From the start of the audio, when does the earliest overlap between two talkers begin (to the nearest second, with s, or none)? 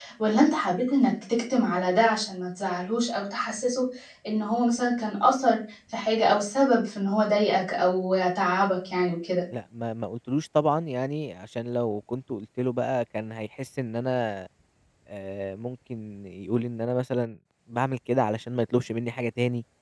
none